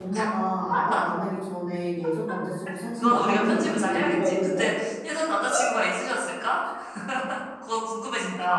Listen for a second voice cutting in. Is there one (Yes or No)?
Yes